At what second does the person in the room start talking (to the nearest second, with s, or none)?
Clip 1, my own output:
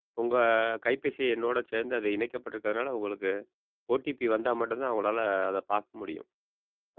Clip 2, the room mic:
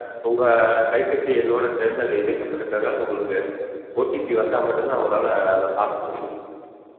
none